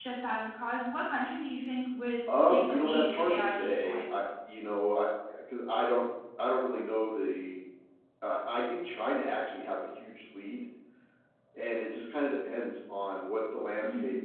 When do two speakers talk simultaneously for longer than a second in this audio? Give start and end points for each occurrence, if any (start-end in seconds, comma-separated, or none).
2.5-4.1